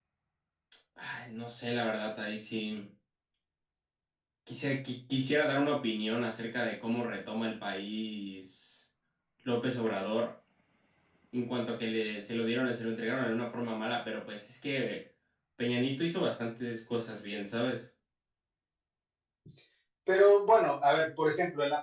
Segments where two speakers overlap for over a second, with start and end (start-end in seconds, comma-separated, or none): none